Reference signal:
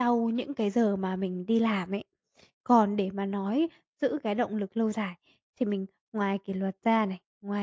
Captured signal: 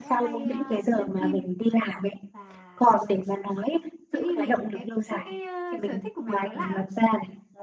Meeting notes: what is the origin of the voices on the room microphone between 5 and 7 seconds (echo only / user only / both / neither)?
both